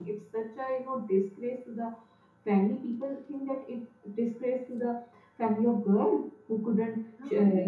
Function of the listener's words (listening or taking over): listening